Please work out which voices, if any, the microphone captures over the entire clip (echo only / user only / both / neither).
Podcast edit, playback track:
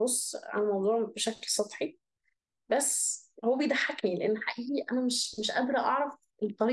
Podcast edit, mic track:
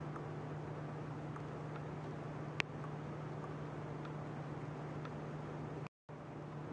neither